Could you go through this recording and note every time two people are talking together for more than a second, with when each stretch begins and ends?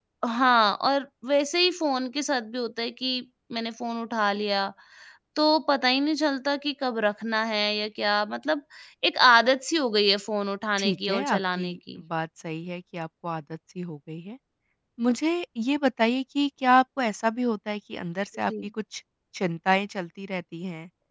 10.8-12.0

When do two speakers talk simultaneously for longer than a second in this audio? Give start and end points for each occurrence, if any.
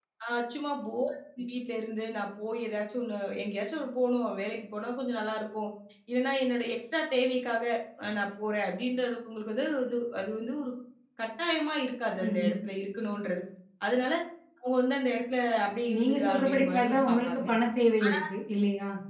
16.0-17.4

